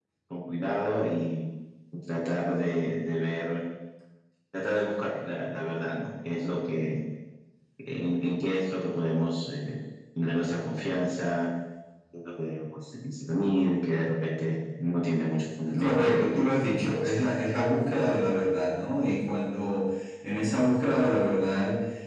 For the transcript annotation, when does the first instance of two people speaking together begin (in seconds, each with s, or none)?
15.7 s